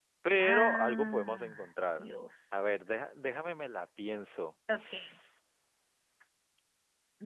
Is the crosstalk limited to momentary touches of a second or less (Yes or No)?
No